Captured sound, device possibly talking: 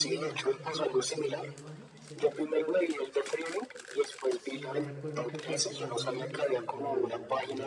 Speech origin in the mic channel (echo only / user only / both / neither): both